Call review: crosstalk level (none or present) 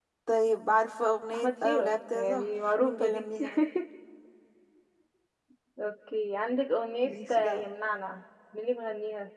present